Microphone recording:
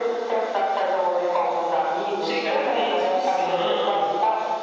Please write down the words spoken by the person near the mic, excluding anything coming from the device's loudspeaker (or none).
chegar a ter discussão,